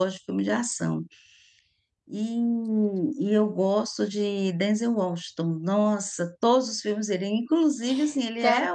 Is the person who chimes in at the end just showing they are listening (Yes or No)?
Yes